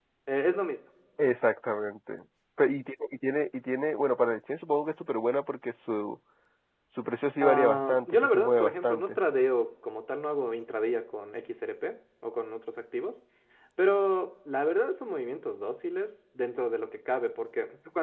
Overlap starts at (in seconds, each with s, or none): 7.4 s